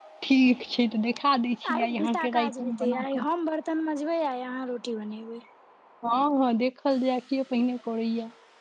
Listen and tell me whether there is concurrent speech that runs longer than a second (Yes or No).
Yes